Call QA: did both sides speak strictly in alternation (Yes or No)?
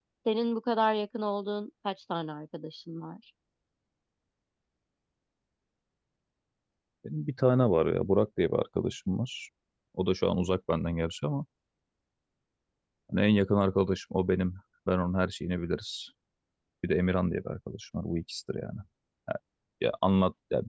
Yes